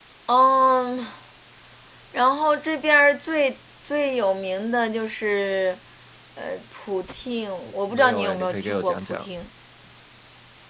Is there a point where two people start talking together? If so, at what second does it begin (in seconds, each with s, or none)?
7.6 s